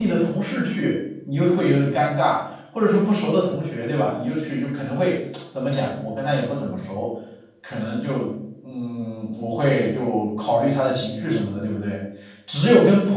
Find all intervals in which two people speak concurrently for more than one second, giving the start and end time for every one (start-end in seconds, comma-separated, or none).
none